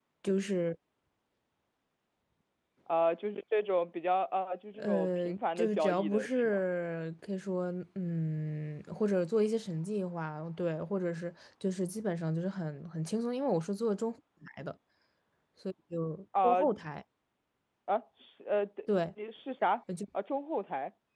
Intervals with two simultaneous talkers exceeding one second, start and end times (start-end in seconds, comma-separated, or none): 4.8-6.6